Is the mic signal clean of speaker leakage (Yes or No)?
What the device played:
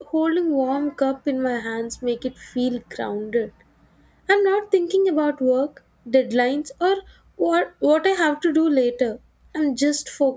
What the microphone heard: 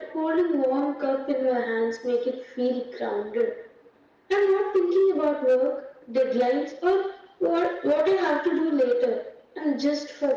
No